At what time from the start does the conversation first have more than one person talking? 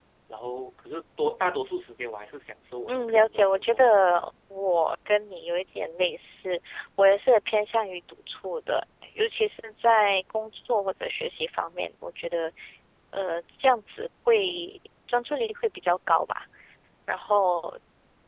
2.9 s

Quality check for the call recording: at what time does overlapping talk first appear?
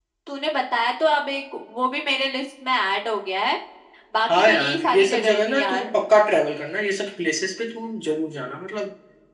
4.4 s

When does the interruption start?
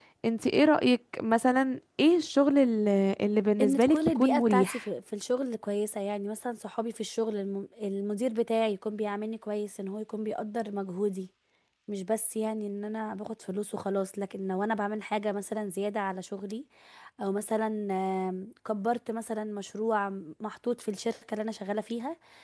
3.6 s

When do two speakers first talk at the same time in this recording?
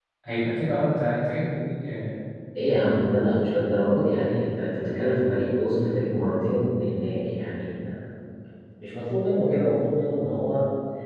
none

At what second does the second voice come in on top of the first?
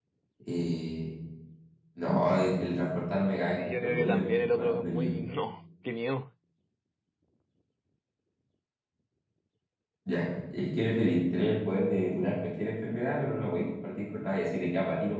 3.5 s

